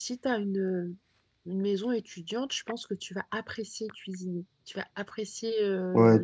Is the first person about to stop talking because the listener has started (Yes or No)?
Yes